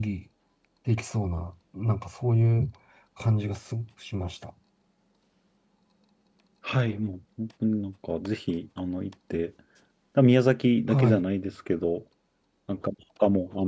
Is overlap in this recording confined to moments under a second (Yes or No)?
Yes